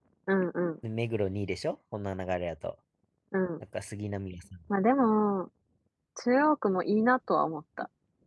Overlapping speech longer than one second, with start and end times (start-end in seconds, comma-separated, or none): none